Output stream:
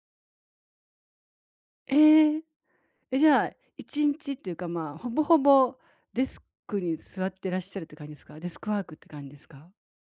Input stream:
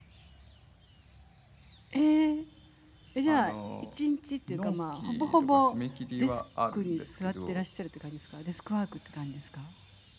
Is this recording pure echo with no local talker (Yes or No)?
No